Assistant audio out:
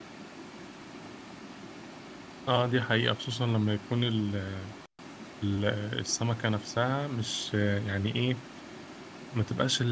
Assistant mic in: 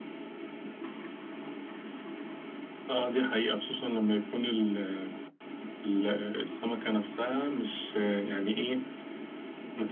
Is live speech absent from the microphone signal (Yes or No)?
Yes